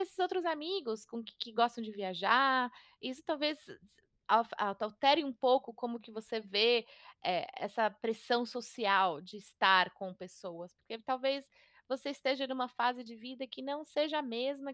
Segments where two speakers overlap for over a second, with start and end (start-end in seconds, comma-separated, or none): none